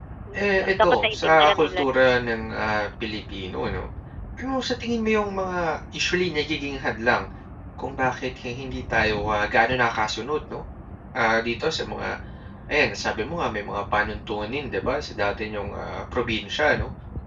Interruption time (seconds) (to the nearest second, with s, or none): 1 s